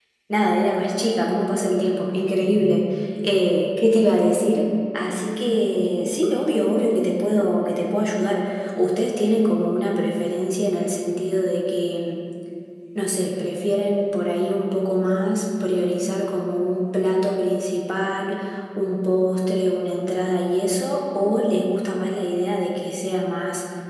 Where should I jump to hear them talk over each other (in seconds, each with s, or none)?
none